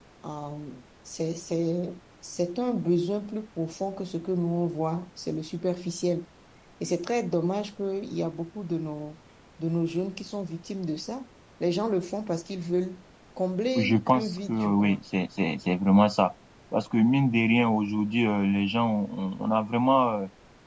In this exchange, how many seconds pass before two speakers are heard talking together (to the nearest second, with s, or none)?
14 s